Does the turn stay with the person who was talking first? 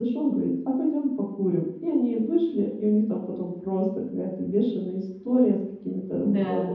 Yes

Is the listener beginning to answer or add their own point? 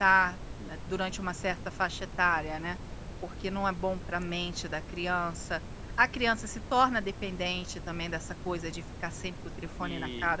Yes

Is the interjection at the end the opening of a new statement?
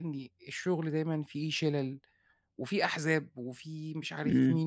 Yes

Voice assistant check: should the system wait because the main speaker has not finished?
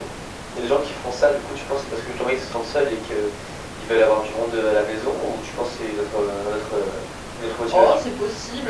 No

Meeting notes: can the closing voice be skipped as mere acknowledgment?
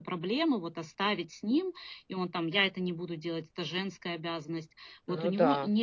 Yes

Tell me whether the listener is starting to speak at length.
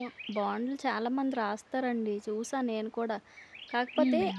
No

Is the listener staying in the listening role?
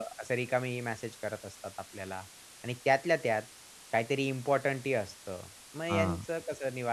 Yes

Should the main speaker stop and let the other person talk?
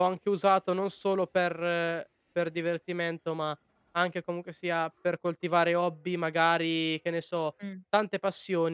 No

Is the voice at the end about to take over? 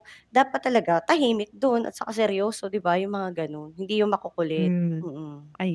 Yes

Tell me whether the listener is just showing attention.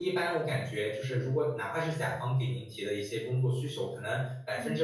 Yes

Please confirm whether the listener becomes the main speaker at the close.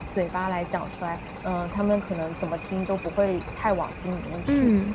Yes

